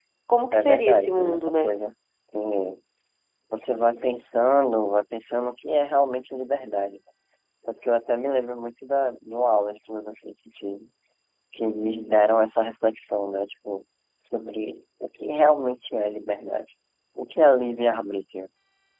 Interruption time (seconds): 0.5 s

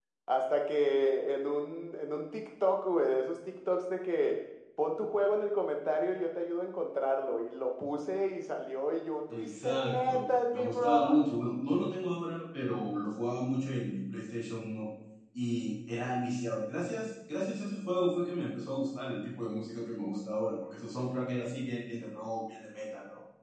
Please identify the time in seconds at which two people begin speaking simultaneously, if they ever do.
9.3 s

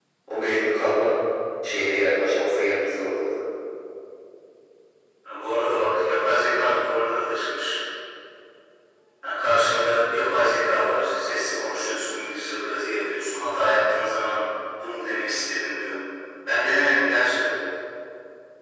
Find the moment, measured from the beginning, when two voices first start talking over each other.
none

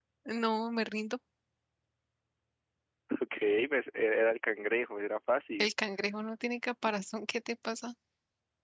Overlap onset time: none

